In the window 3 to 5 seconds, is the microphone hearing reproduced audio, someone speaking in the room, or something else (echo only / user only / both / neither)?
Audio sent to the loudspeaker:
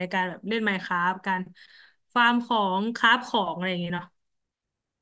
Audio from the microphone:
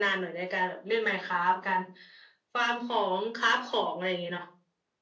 echo only